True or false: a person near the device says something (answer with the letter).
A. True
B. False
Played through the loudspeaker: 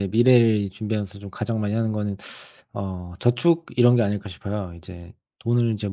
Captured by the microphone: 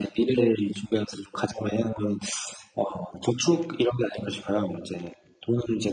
B